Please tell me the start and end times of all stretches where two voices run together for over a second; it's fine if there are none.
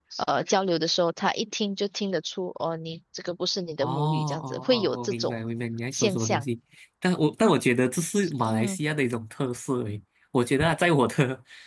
3.8-5.4

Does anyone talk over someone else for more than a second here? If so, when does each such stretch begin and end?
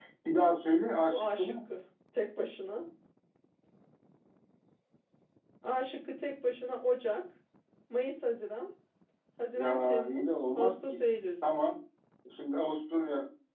9.5-10.7

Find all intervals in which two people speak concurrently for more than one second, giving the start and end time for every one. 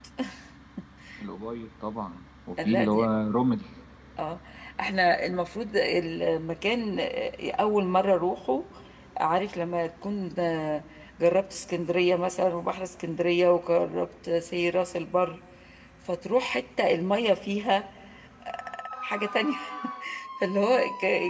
none

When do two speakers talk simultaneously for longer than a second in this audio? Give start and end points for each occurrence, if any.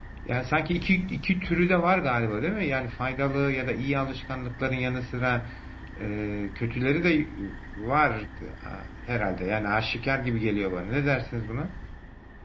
none

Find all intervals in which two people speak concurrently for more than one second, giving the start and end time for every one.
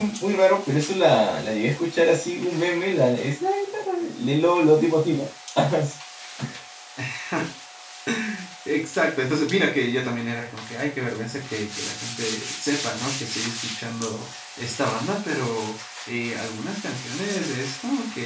none

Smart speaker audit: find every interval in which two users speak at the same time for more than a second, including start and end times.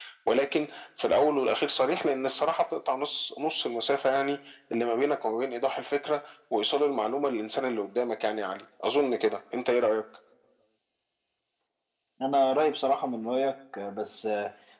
none

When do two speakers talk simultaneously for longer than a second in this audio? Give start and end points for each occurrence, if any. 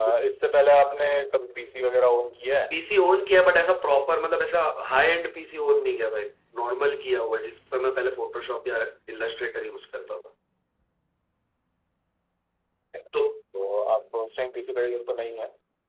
none

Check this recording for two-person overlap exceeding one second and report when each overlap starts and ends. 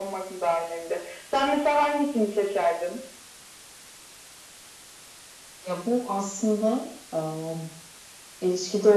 none

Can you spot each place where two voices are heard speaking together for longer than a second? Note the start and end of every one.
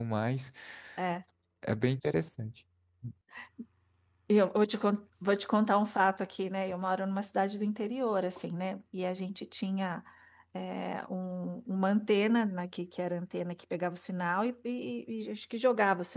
none

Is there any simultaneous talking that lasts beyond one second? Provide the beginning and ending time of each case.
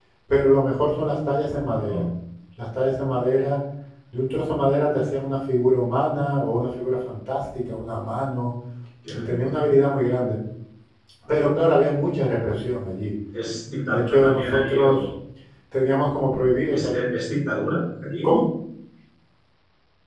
13.9-15.1

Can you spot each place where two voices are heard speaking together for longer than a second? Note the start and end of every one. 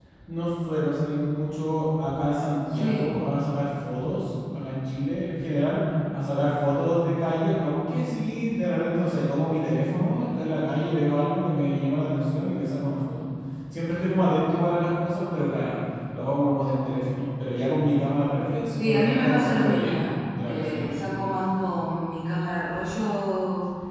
18.8-21.0

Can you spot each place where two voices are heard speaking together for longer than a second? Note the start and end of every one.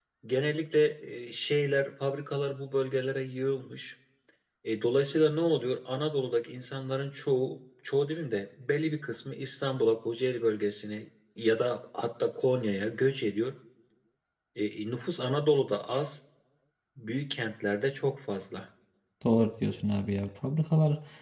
none

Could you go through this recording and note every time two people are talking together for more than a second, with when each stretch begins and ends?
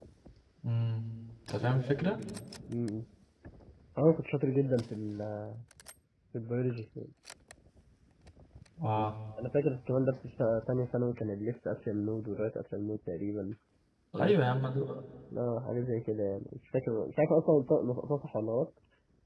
none

